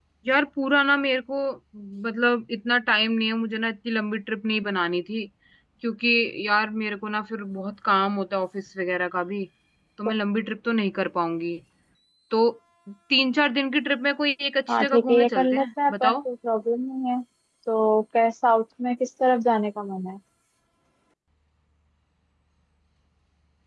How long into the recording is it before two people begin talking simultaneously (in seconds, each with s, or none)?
14.7 s